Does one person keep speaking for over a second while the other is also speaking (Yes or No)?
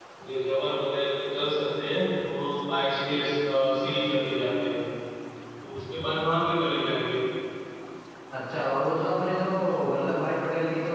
No